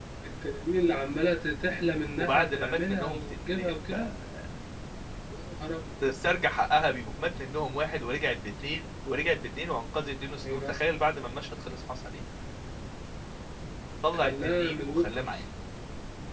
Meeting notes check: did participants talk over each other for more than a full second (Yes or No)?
Yes